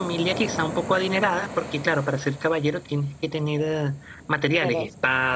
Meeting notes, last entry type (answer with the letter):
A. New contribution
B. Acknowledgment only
B